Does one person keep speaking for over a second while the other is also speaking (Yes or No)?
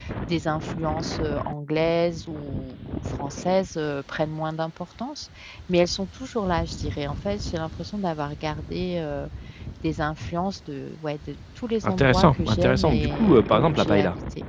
Yes